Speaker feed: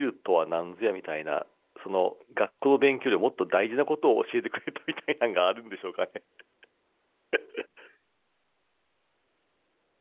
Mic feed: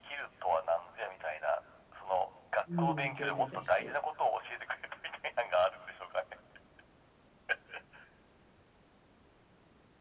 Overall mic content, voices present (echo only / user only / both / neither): both